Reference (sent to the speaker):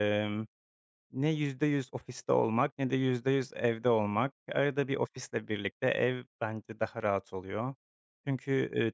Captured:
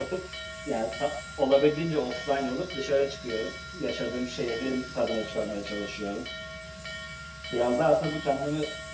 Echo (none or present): none